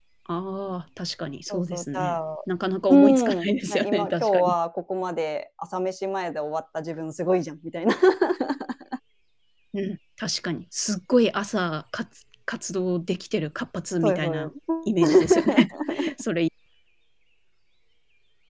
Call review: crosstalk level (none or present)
present